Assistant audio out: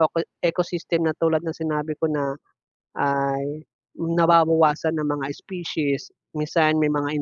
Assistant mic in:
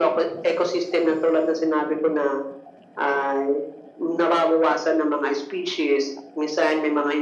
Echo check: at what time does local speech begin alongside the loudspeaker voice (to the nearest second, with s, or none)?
none